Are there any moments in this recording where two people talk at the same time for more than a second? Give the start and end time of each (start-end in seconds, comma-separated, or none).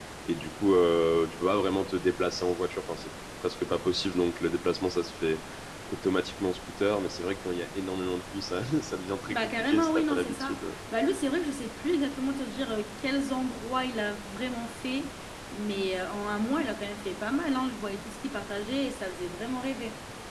9.3-10.6